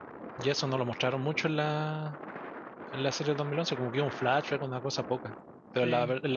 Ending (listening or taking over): listening